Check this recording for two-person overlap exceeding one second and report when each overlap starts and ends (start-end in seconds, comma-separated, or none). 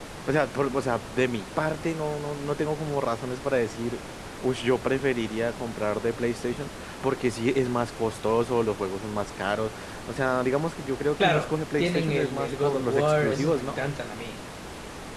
11.2-13.8